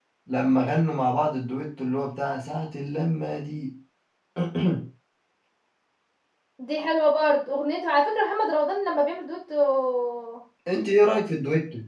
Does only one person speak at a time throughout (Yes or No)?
Yes